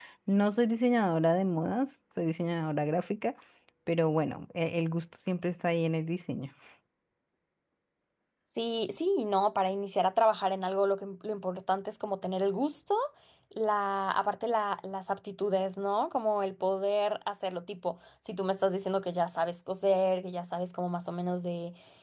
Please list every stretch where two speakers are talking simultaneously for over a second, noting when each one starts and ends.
none

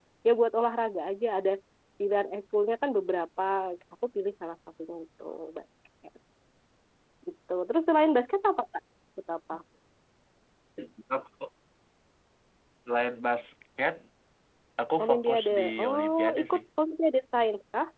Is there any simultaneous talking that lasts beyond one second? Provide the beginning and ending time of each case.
15.0-16.6

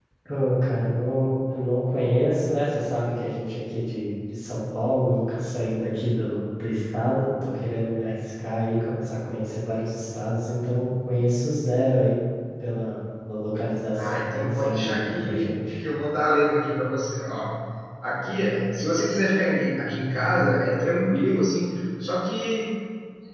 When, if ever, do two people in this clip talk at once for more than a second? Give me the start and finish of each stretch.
13.9-15.8

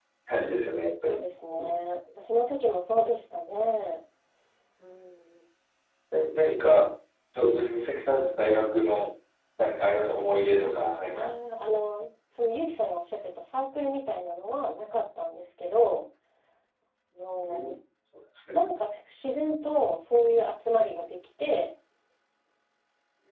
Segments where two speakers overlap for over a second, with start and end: none

